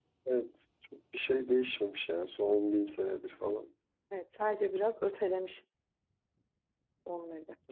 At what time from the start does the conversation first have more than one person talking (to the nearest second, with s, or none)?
none